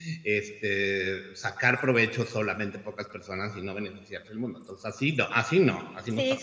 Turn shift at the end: Yes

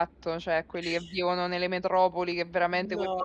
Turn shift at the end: No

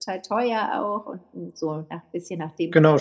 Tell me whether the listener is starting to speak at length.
Yes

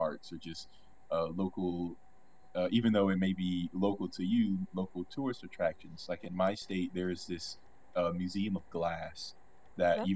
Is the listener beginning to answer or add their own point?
No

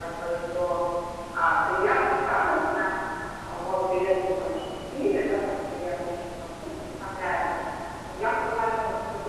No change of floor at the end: Yes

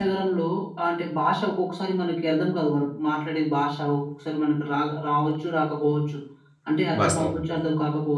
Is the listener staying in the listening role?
Yes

